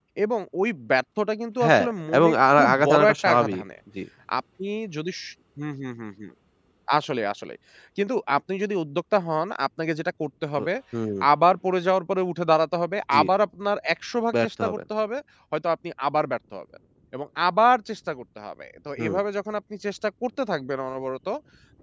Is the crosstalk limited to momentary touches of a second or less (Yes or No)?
No